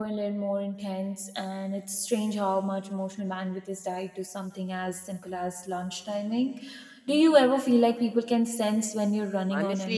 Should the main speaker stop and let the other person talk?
Yes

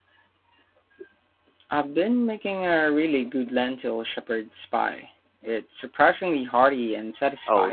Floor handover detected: Yes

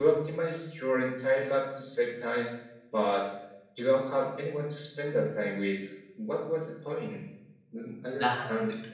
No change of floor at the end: No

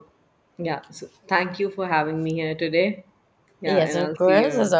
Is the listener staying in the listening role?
No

